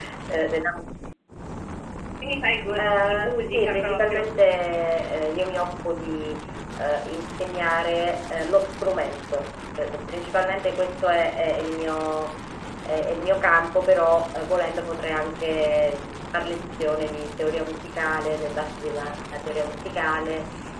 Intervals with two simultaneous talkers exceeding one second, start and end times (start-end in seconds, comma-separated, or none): 2.8-4.3